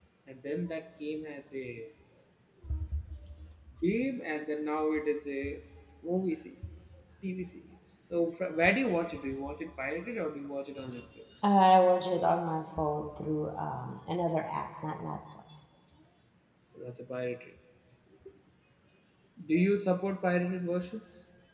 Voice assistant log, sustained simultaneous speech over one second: none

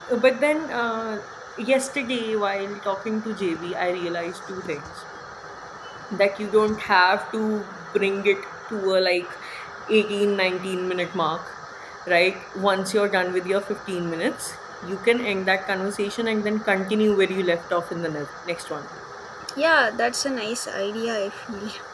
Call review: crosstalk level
none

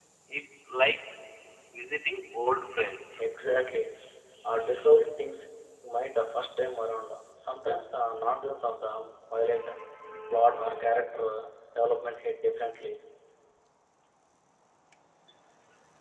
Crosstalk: none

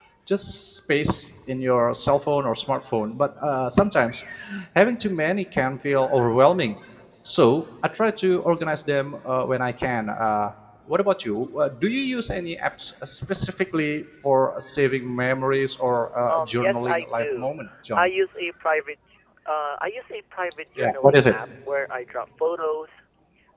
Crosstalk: present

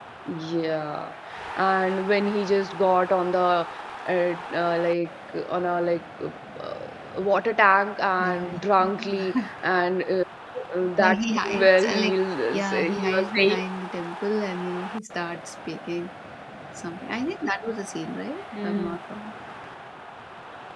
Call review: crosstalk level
present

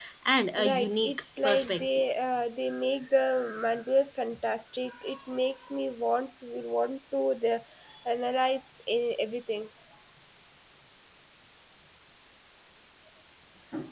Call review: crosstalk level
present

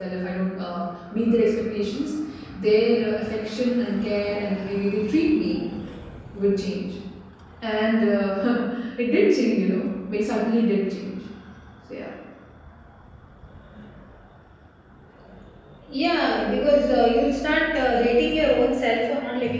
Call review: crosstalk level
none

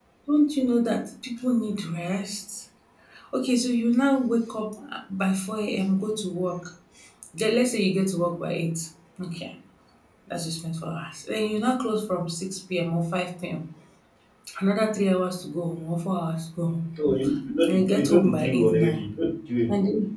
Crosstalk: present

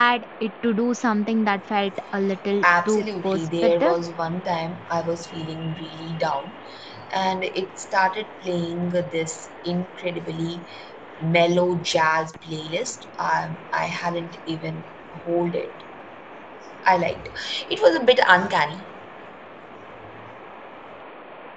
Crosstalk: present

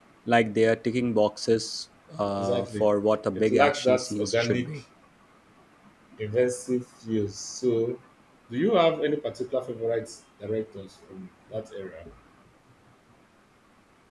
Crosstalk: present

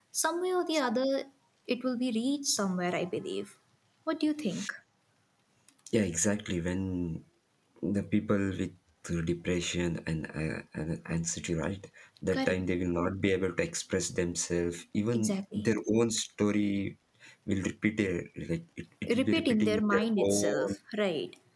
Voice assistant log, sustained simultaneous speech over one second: present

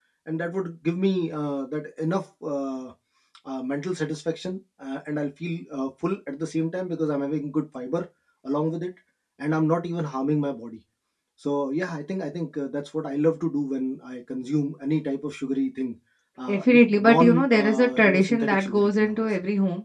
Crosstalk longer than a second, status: present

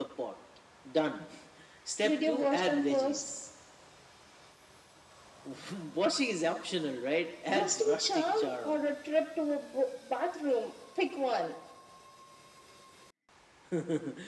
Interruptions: present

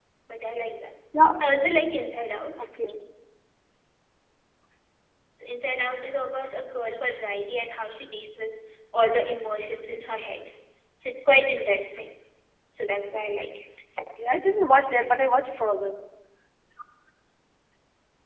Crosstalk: none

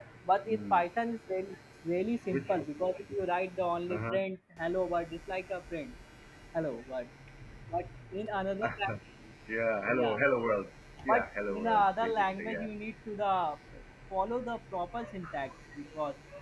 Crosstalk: present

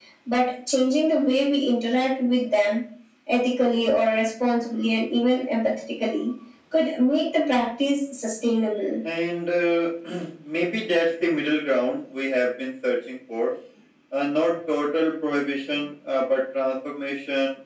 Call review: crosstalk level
none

